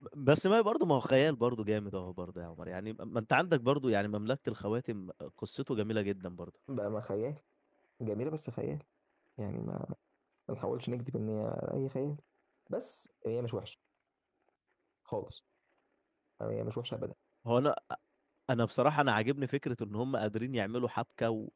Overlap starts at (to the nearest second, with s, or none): none